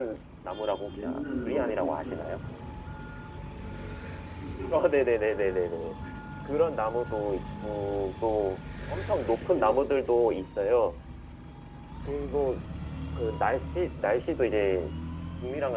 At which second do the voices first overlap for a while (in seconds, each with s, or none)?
0.7 s